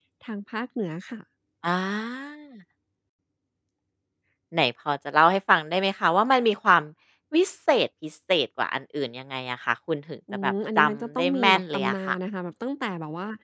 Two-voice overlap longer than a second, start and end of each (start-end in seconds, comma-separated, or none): 10.3-12.2